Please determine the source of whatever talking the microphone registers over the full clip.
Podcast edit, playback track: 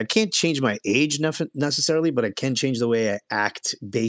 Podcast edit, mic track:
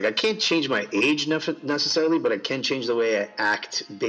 echo only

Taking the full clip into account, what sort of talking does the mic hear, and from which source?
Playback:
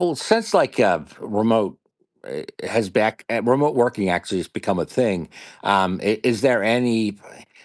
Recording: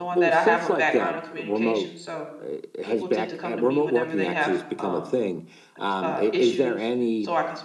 both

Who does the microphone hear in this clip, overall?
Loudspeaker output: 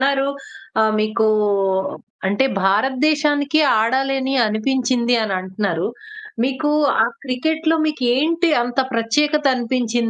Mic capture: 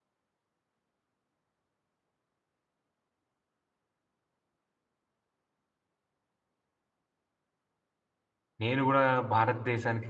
user only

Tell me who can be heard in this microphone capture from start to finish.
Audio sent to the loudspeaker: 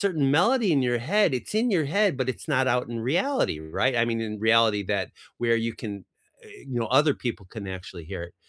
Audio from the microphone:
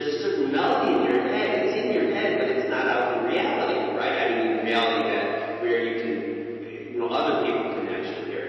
echo only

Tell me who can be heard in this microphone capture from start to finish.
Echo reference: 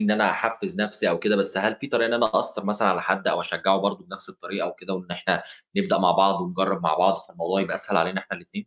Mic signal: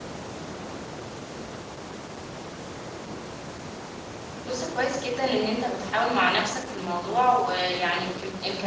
user only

